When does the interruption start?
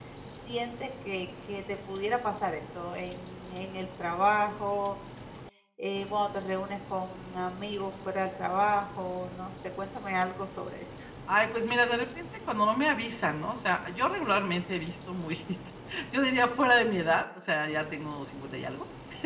none

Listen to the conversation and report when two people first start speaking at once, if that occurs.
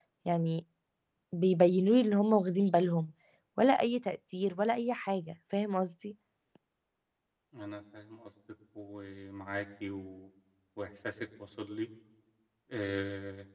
none

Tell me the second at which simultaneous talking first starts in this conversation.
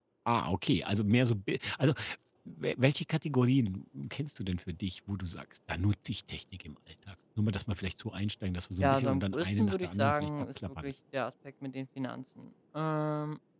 8.8 s

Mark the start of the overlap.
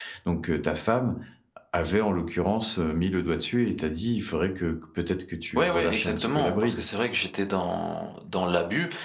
5.5 s

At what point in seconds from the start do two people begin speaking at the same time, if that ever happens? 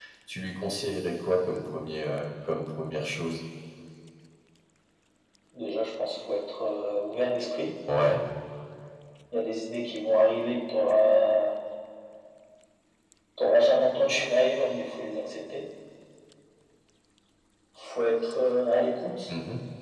none

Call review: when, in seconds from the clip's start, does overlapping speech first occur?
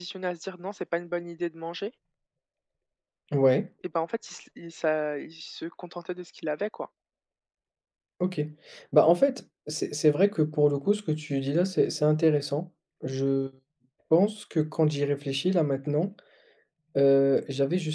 none

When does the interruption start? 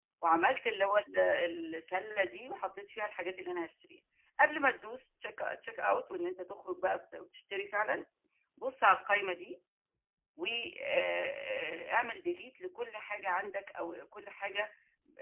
none

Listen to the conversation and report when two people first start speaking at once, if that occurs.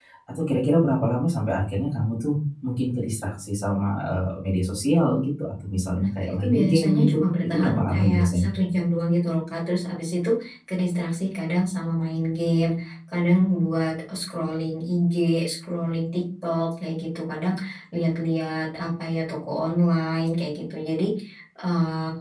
6.0 s

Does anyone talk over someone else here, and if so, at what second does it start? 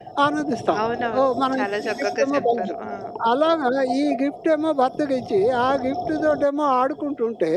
1.2 s

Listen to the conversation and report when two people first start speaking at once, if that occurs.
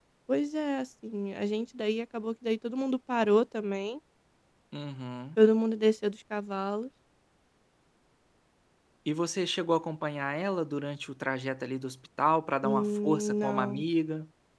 12.6 s

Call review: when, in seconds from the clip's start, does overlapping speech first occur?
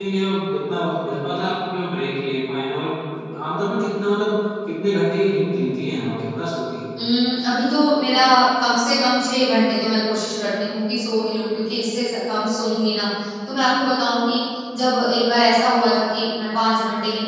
none

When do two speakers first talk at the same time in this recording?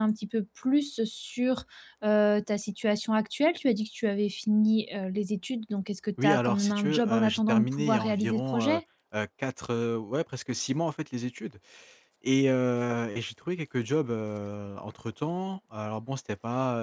6.2 s

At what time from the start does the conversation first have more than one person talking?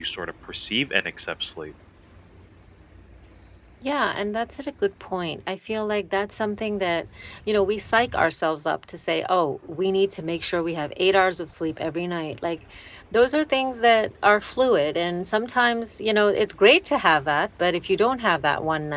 none

